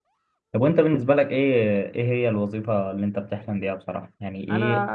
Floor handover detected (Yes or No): No